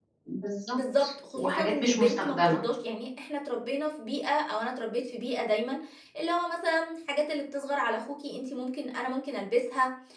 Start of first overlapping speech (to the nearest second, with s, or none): 1 s